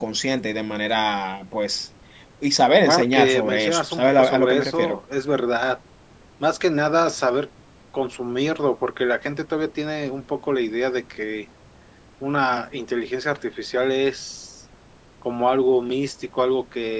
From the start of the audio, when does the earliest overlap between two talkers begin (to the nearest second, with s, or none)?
3 s